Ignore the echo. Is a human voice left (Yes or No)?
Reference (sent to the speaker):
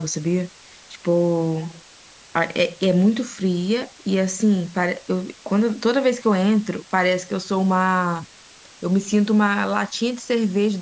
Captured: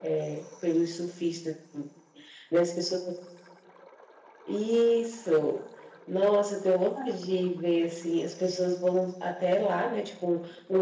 Yes